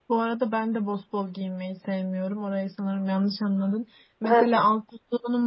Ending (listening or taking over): listening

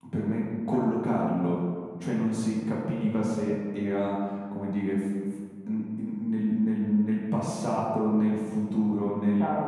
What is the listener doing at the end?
taking over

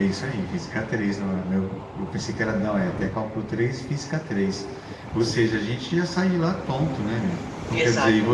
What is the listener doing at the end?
listening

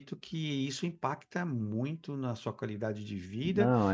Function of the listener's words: listening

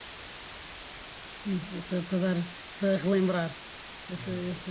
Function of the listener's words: listening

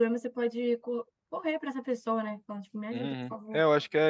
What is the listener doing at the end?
taking over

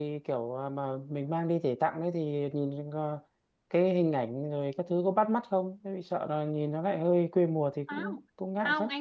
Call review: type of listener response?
taking over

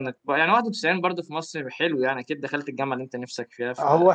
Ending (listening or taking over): taking over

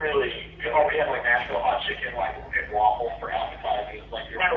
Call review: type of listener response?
listening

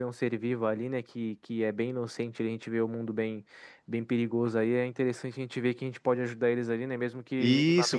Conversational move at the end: taking over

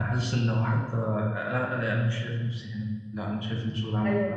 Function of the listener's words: taking over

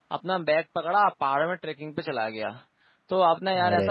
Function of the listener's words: listening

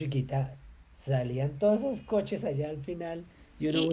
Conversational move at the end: taking over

